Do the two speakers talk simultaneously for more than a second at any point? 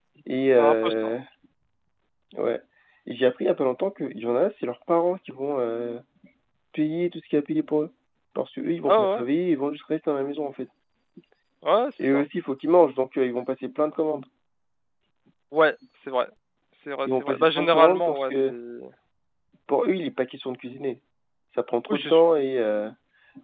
Yes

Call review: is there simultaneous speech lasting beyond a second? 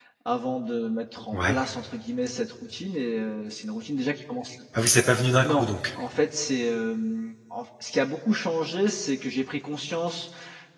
No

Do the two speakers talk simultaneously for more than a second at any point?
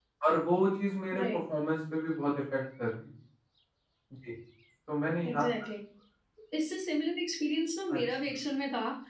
No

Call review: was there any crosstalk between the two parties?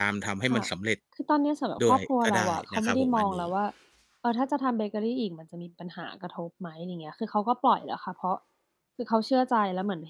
Yes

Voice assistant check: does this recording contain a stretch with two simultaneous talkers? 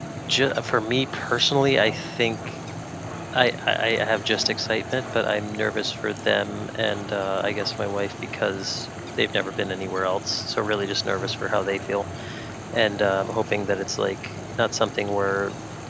No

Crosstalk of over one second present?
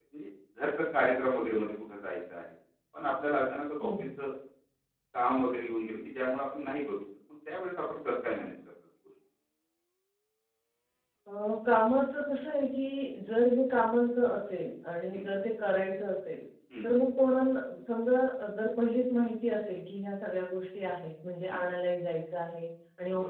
No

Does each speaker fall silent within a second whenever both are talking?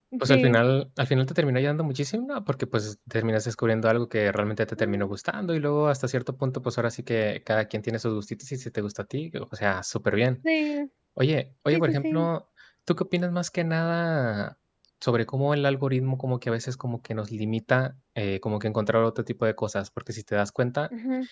Yes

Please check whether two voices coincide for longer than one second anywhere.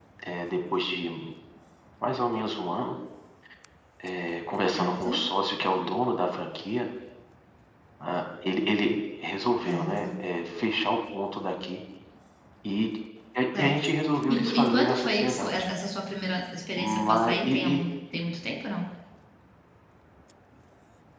Yes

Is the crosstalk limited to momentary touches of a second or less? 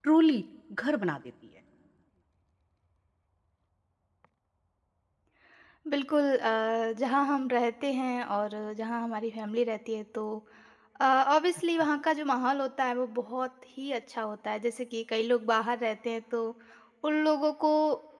Yes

